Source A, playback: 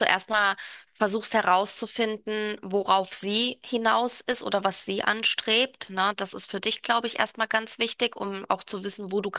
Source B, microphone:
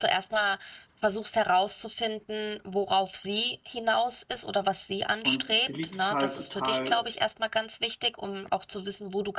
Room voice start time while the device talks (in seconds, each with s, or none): 5.2 s